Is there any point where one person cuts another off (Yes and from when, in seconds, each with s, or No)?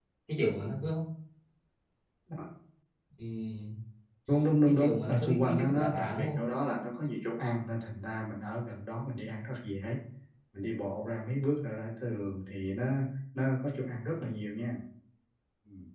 Yes, from 4.6 s